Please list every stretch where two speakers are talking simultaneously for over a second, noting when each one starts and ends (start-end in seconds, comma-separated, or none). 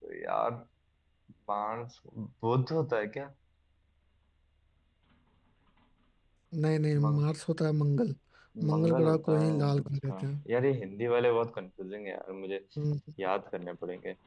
8.7-10.3